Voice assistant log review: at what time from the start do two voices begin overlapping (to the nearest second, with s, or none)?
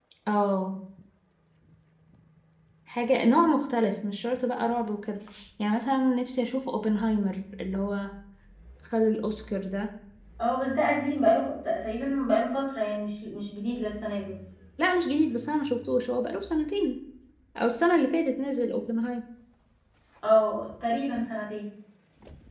none